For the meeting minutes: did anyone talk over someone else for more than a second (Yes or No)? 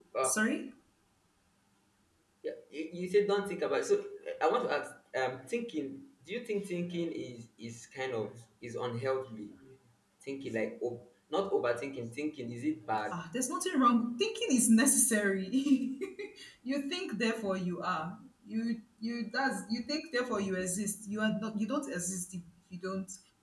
No